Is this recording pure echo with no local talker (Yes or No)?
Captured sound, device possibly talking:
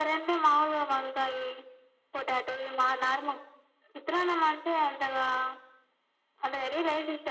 Yes